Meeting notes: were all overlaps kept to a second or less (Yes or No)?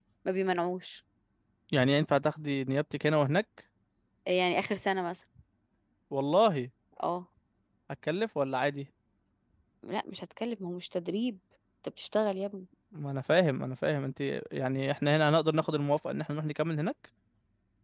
Yes